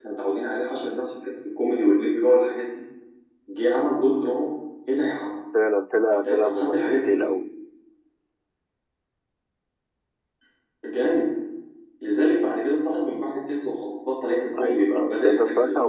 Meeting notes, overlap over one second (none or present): present